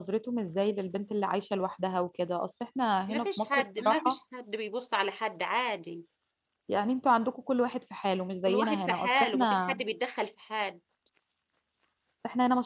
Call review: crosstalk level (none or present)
present